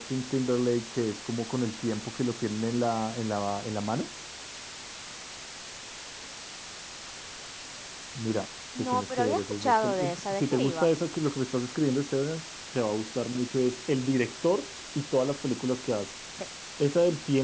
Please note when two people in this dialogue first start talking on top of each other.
8.8 s

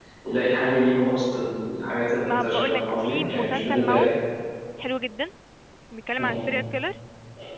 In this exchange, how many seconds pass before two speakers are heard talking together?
2.3 s

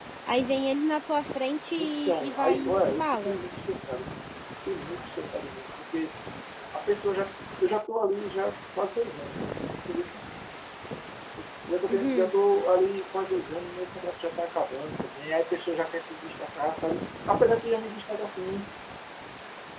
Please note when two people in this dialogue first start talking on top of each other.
1.8 s

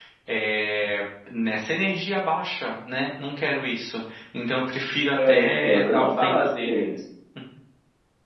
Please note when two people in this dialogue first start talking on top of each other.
5.2 s

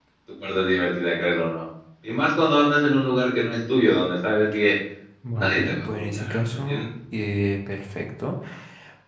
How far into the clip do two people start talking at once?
5.4 s

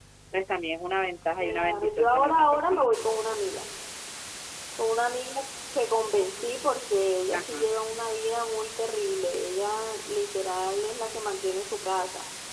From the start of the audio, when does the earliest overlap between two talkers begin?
1.4 s

